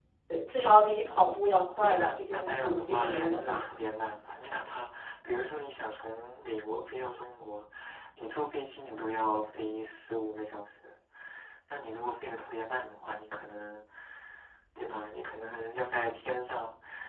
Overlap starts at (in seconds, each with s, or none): 1.8 s